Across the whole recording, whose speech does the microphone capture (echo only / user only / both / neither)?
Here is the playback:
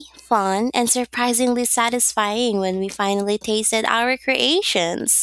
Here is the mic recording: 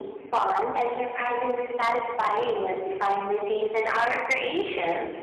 echo only